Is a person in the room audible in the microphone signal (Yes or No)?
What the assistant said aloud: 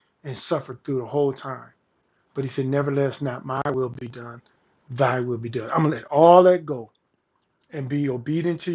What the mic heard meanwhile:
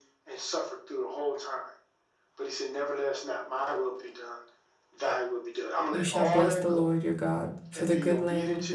Yes